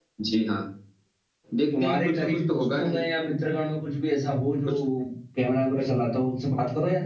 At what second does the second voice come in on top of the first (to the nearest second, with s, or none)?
2 s